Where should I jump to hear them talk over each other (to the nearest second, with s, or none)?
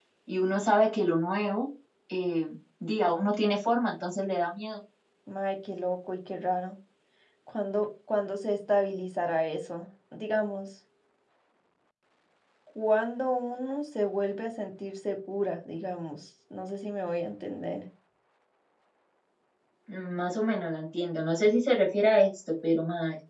none